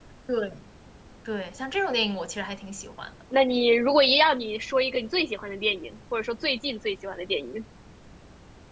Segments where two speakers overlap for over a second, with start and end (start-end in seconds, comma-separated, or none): none